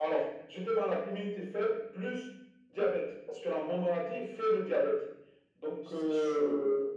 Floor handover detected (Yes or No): No